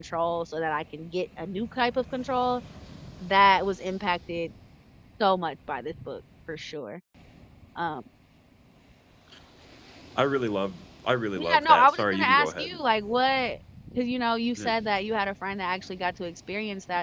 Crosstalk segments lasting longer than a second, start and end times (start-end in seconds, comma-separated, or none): 11.4-12.8